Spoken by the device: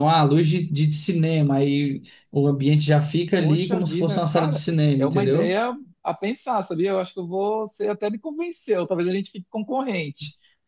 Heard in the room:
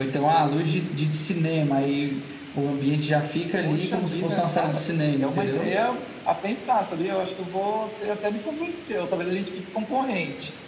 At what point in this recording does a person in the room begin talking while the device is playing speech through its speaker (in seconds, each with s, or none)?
none